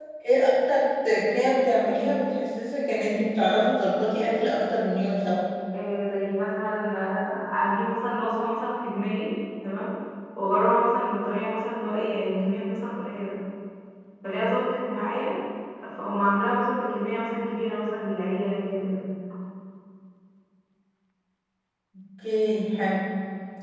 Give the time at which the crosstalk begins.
none

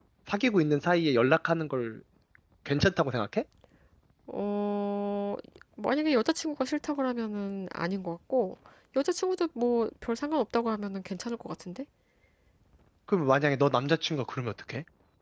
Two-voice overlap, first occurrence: none

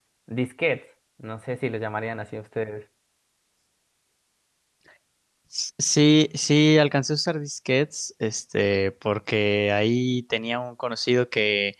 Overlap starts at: none

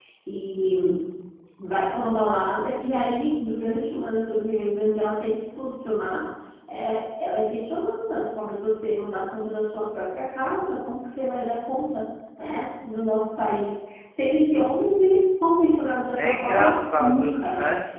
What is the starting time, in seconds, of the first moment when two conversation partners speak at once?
16.2 s

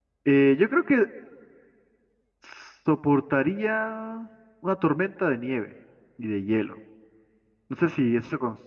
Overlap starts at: none

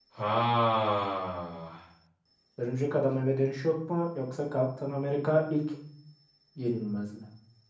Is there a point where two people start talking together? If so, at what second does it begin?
none

